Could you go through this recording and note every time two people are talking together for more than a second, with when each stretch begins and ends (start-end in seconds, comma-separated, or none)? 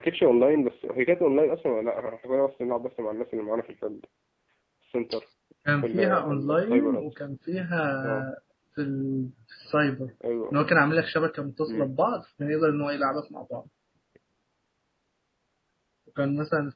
5.8-7.0